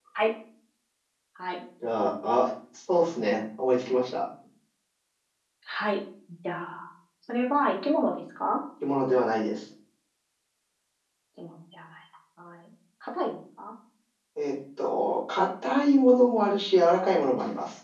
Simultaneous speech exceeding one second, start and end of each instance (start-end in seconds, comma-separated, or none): none